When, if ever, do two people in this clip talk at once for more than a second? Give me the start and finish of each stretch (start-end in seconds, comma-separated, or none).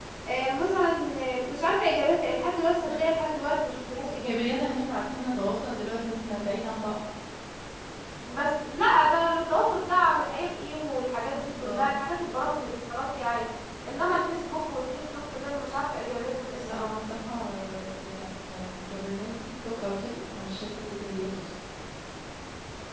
none